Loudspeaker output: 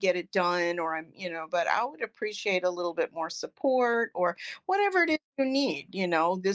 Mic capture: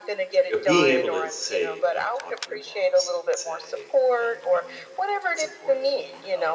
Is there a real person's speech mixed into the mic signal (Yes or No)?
Yes